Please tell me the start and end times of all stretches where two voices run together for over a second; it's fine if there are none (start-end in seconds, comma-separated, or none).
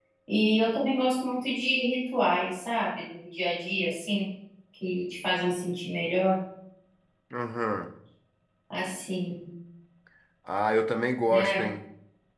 none